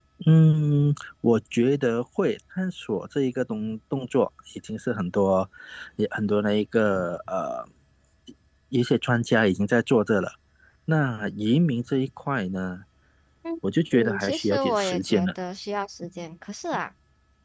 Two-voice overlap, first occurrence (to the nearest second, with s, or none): 14 s